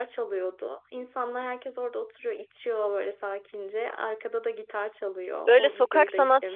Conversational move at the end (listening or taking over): taking over